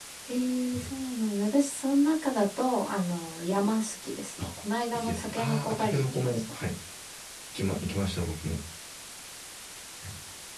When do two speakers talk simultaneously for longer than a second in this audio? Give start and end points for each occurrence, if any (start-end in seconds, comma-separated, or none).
4.9-6.4